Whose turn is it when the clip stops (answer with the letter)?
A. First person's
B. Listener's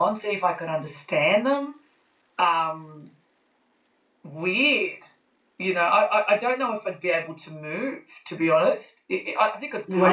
B